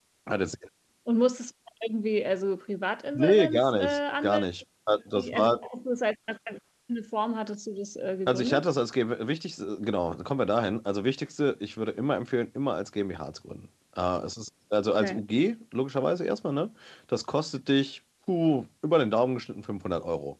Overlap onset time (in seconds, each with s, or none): 3.1 s